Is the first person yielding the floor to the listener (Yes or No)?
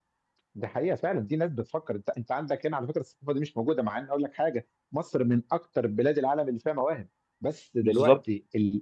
No